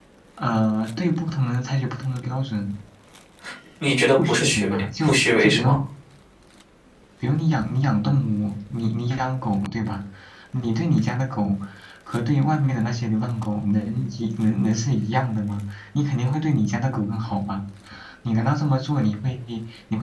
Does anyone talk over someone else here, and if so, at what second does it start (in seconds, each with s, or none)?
4.2 s